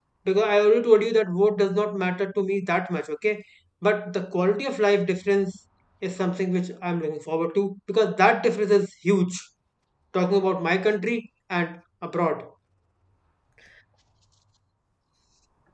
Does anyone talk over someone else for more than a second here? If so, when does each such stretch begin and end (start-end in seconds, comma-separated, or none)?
none